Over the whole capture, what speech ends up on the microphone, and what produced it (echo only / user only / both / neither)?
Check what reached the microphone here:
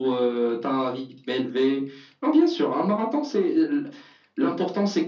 echo only